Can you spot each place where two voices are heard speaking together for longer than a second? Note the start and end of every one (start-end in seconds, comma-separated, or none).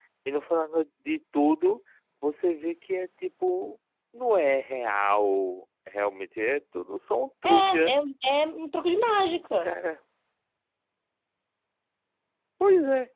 none